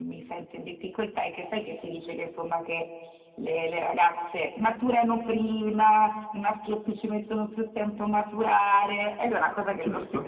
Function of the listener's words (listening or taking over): listening